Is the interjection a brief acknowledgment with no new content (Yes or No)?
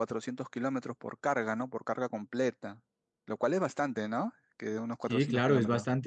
No